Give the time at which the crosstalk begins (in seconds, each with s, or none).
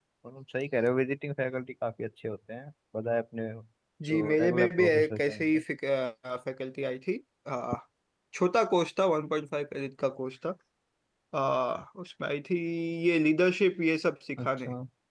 4.0 s